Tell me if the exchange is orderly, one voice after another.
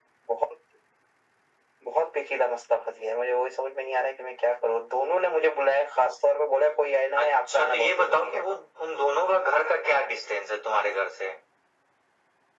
No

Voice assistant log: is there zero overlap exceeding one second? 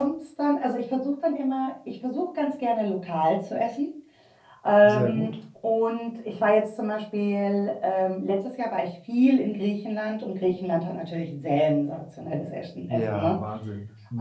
Yes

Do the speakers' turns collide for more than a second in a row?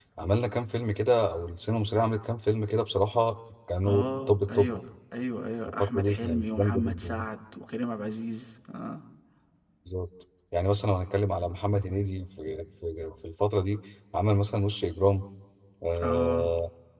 Yes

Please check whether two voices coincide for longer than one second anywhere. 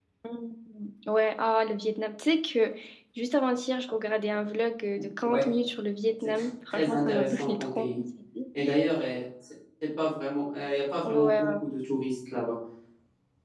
Yes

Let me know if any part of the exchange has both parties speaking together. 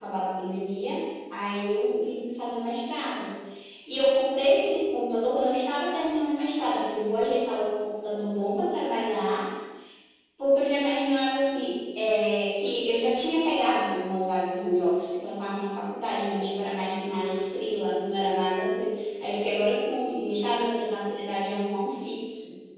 No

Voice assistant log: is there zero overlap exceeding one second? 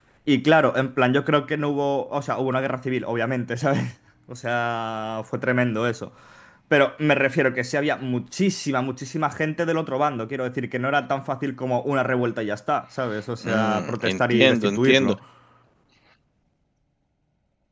No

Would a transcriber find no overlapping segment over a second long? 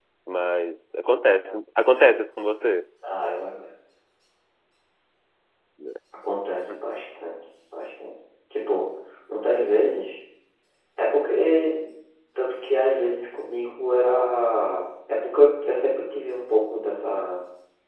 Yes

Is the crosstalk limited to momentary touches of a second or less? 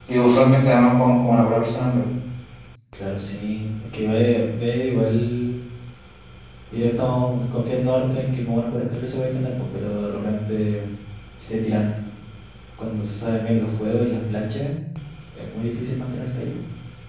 Yes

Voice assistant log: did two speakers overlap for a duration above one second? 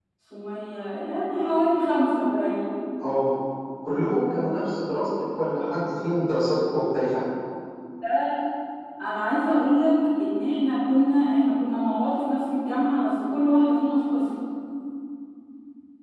No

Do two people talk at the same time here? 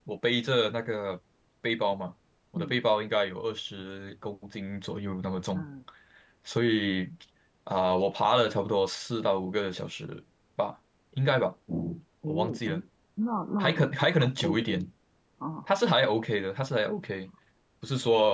Yes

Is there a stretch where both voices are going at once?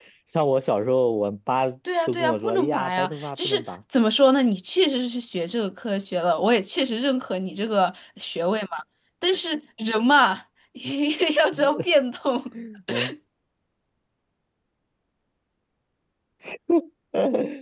Yes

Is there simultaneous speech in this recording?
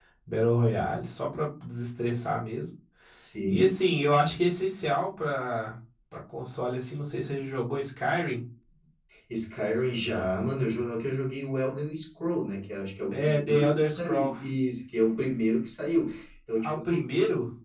Yes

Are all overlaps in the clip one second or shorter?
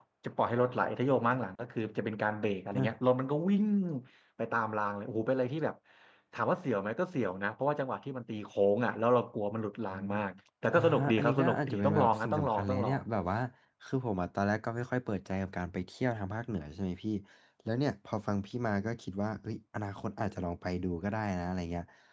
No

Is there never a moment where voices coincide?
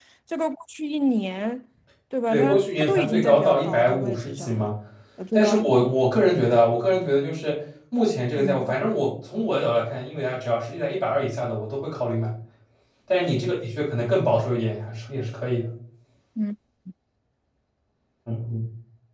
No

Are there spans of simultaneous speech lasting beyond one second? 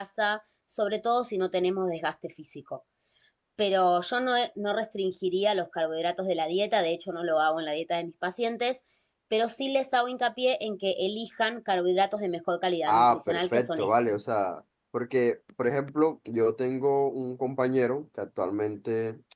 Yes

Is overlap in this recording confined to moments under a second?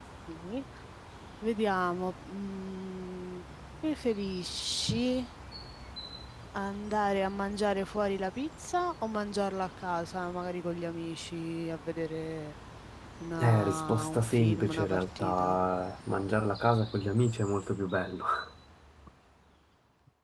No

